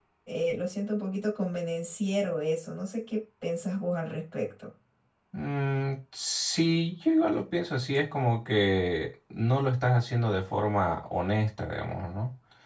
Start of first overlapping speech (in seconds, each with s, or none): none